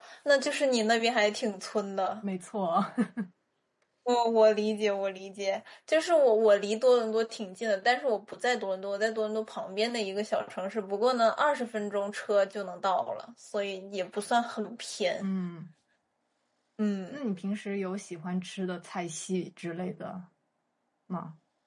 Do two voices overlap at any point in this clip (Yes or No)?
No